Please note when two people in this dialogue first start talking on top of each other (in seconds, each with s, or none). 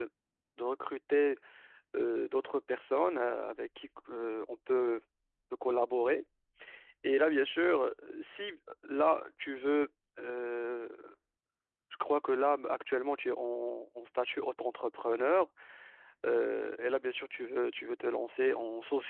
none